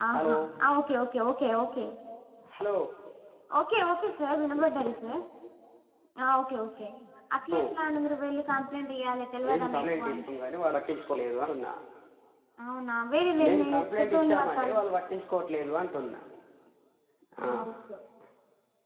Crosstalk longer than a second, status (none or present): present